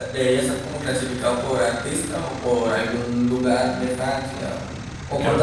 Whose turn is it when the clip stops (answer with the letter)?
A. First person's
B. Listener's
B